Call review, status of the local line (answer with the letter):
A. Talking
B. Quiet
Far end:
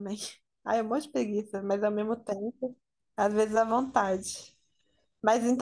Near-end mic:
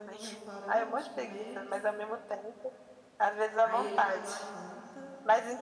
A